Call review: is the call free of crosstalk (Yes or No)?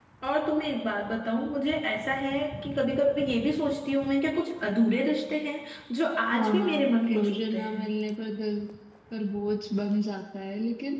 No